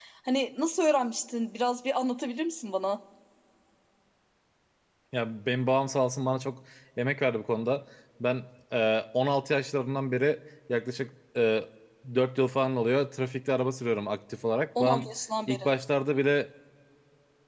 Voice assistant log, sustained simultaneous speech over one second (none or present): none